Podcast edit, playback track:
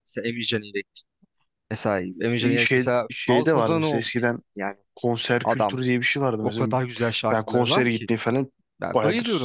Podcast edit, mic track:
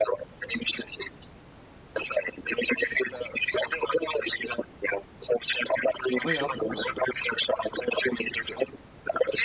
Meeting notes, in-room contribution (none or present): present